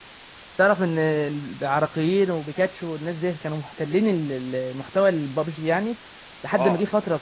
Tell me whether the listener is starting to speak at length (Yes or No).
No